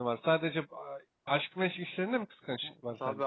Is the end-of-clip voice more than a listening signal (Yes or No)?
Yes